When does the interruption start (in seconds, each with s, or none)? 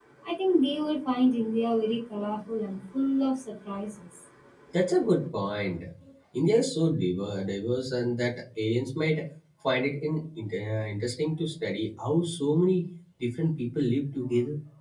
none